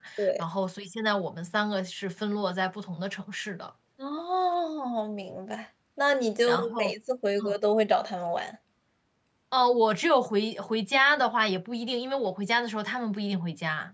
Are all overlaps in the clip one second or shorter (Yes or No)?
Yes